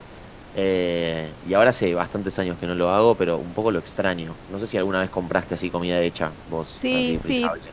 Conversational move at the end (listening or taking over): taking over